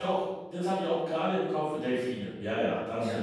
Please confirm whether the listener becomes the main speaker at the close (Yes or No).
Yes